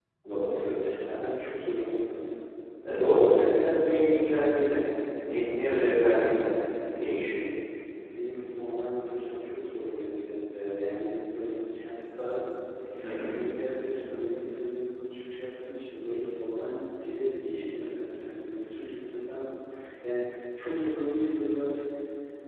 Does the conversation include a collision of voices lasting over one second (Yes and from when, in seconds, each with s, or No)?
No